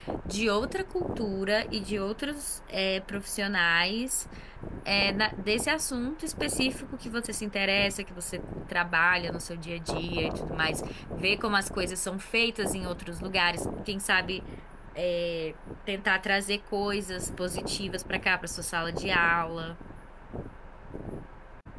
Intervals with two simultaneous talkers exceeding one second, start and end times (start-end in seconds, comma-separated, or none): none